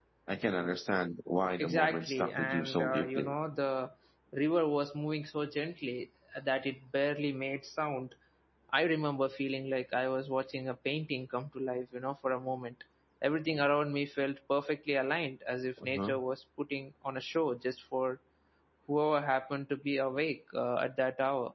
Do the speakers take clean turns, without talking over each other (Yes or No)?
No